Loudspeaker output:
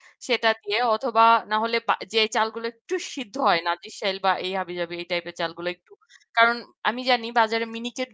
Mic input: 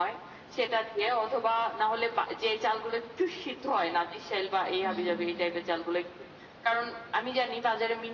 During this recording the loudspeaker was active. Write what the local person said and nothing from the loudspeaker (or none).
হুম।